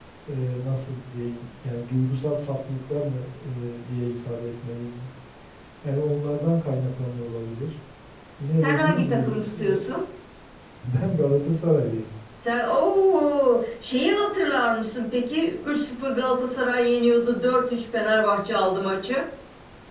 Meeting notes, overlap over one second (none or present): present